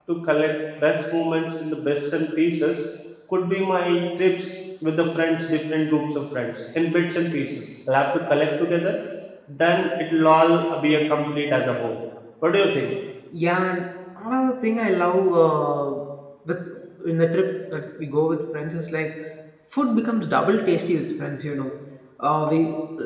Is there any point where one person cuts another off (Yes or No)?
No